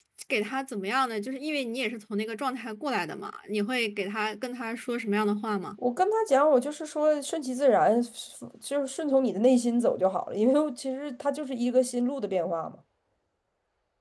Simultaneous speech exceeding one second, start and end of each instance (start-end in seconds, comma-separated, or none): none